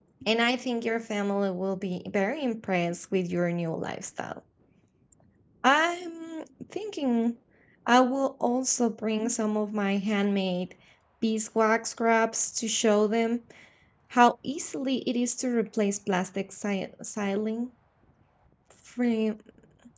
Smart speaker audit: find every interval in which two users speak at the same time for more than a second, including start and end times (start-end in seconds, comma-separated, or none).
none